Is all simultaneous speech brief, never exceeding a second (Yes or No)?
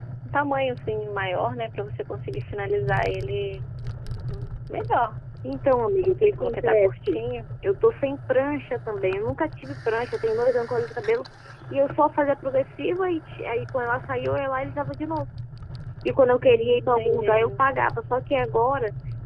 No